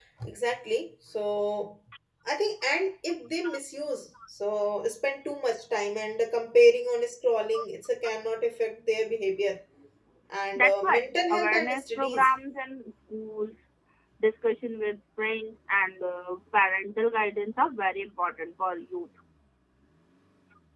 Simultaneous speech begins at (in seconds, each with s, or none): 10.6 s